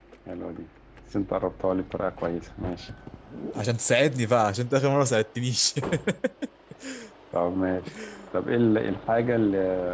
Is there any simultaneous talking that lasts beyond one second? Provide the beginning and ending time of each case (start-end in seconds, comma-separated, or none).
none